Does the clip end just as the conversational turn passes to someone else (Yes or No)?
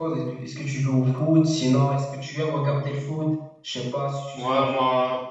Yes